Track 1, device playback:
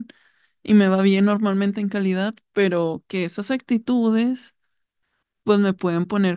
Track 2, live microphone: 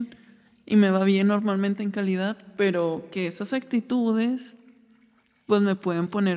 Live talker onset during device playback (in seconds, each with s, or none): none